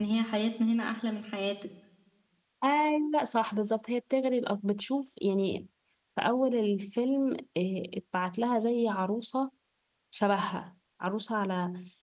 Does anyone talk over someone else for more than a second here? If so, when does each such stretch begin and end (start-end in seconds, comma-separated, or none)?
none